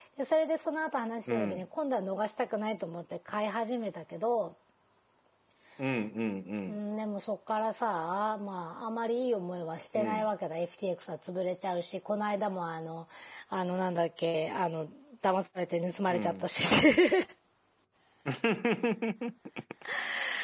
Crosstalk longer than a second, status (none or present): none